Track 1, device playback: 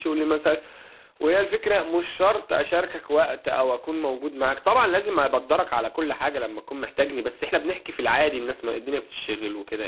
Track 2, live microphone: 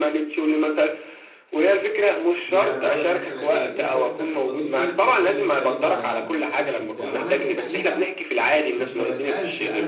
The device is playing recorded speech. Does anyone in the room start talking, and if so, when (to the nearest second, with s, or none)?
2 s